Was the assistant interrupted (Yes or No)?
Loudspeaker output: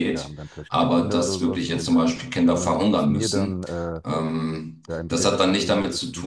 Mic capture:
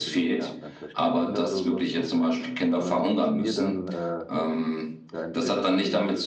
No